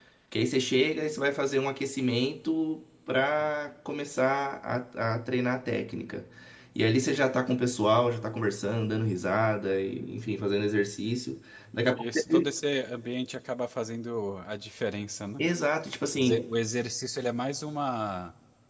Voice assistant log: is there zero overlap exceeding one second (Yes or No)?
Yes